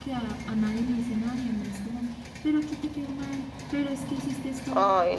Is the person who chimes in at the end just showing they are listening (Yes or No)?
Yes